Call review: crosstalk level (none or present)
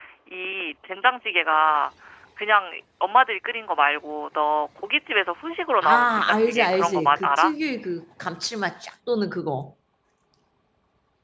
present